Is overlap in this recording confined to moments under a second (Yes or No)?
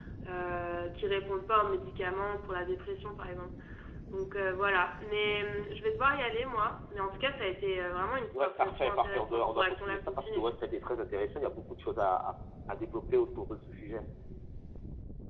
No